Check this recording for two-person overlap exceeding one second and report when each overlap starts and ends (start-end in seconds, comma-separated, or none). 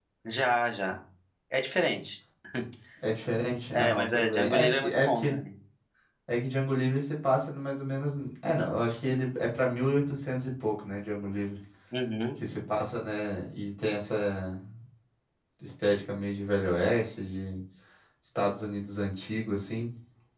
3.7-5.4